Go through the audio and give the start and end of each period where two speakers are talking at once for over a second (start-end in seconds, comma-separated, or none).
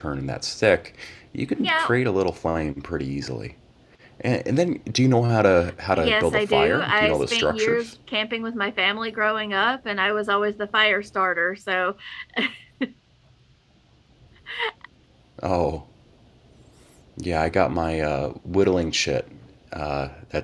6.0-7.8